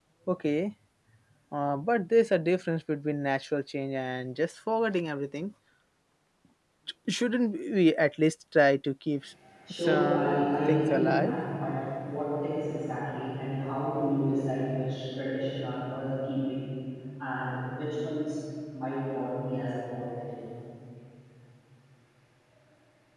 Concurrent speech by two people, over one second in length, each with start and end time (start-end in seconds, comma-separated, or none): 9.7-11.4